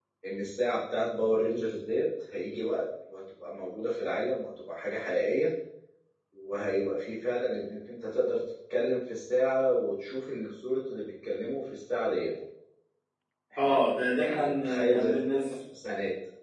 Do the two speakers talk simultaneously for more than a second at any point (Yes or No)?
Yes